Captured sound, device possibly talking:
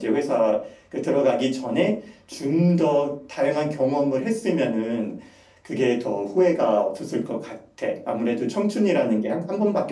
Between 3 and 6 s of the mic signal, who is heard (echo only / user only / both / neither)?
echo only